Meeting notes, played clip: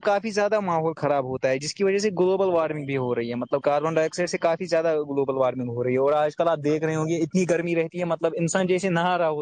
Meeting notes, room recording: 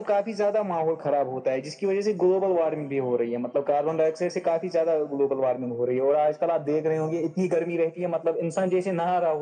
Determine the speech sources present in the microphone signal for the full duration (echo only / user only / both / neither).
echo only